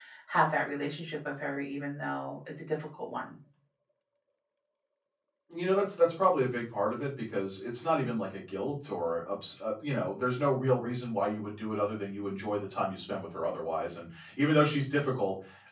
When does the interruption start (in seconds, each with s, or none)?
none